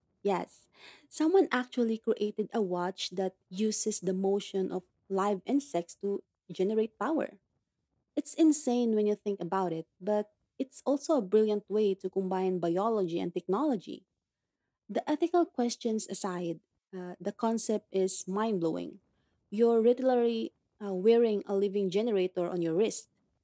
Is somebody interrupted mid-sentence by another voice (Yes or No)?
No